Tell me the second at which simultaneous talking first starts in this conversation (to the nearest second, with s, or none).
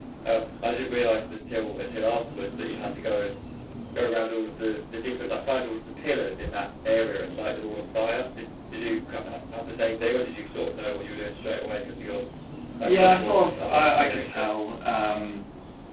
13 s